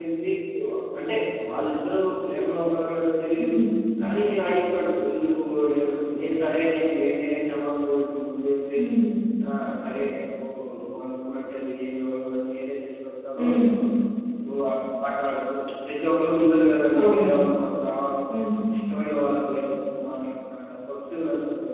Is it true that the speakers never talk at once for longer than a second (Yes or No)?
Yes